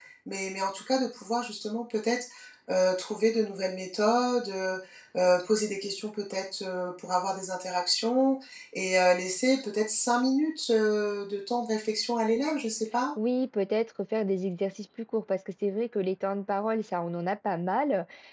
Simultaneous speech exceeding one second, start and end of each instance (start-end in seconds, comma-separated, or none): none